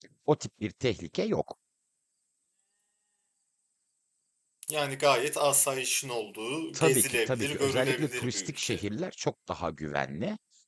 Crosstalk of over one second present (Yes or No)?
Yes